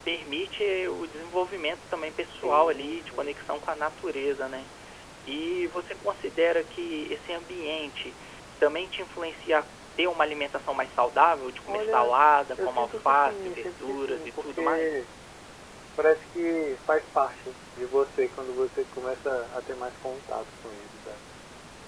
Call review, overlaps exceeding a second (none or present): present